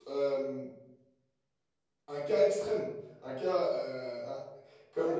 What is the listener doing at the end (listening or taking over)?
taking over